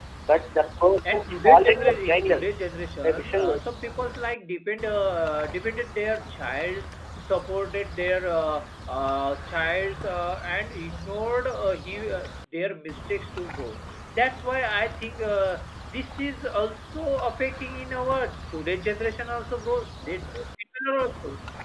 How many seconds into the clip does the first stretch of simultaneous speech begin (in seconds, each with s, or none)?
1.1 s